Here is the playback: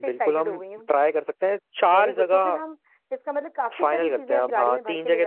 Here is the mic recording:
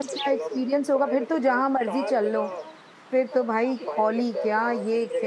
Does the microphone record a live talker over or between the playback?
Yes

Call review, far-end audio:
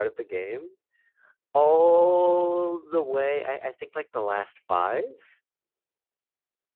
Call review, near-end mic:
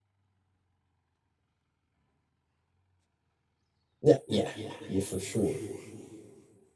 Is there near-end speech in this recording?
Yes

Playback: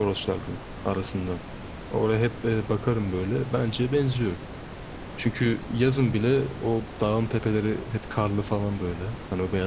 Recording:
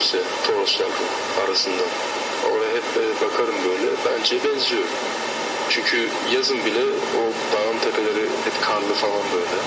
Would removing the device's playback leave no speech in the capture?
Yes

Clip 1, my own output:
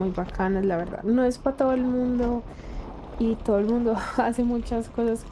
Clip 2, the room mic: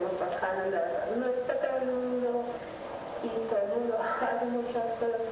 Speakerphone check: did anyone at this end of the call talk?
No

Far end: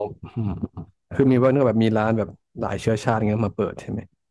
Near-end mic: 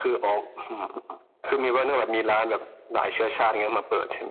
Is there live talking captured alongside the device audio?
No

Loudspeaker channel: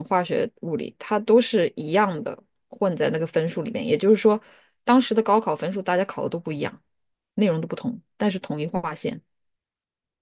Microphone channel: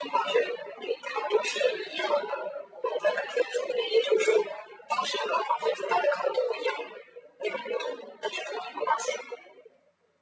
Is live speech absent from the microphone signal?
Yes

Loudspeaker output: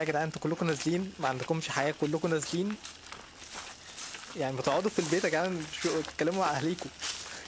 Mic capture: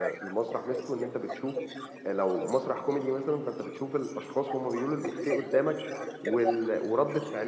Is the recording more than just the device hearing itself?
Yes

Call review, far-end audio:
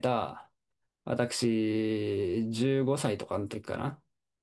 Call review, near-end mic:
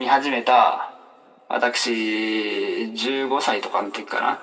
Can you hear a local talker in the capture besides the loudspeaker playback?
No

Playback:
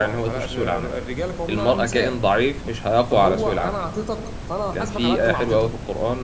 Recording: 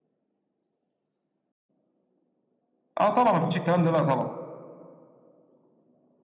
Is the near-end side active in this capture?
Yes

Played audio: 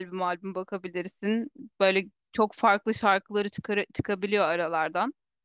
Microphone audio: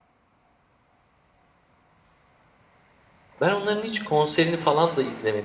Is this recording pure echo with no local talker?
No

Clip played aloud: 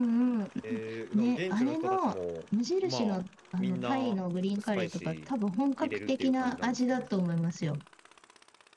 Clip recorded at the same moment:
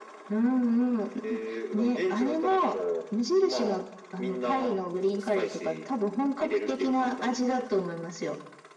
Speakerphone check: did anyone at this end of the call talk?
No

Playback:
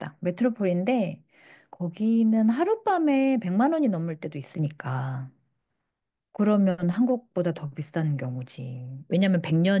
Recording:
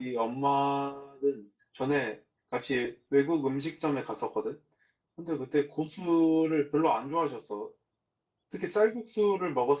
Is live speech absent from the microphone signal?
No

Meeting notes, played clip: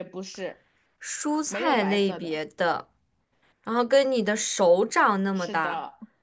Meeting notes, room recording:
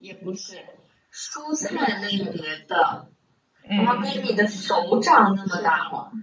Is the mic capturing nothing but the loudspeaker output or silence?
No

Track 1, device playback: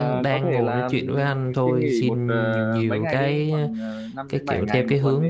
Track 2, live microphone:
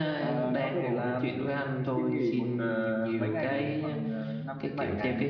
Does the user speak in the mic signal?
No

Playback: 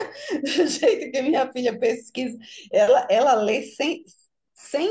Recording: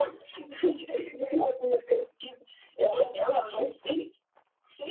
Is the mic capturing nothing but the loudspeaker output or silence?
Yes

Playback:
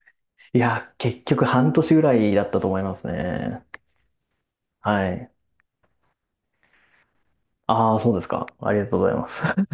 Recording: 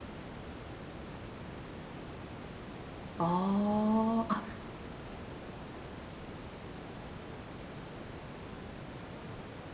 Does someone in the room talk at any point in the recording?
Yes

